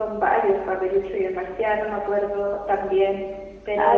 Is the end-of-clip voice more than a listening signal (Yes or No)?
Yes